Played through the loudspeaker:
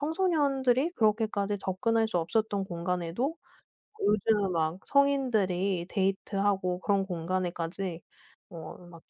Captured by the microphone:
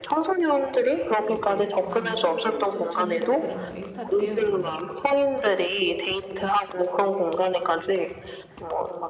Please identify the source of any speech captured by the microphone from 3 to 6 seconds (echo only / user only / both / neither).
both